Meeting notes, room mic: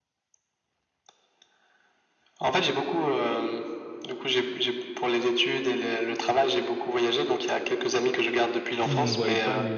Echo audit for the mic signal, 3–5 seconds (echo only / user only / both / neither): echo only